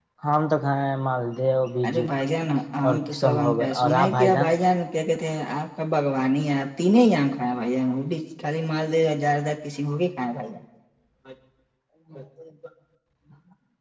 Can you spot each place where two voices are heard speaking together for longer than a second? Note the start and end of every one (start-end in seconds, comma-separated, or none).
2.8-4.5